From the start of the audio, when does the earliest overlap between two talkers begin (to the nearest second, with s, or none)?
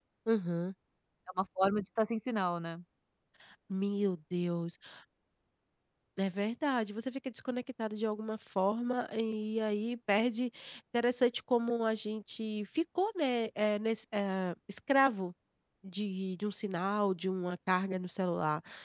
none